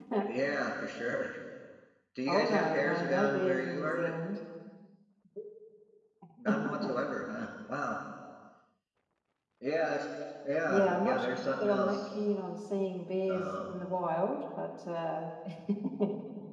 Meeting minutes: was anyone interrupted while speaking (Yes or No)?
Yes